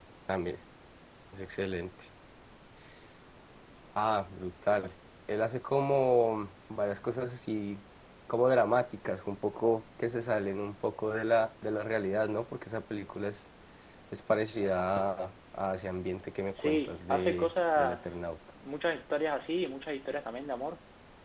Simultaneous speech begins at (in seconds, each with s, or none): 16.5 s